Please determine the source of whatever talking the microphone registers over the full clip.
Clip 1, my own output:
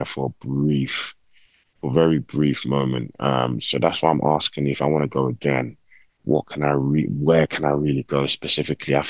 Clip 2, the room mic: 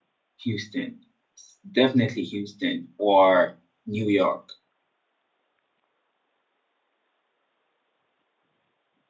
user only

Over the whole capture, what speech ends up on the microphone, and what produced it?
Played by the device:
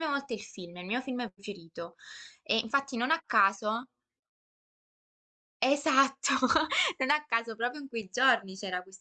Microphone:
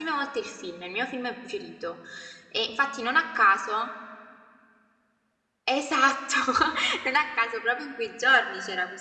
echo only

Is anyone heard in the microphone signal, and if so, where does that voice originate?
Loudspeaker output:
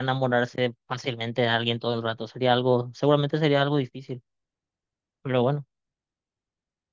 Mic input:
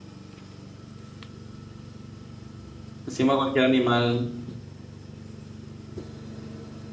user only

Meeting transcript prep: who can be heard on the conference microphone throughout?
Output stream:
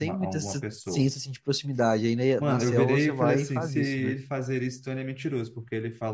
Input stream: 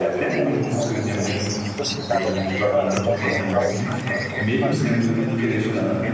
both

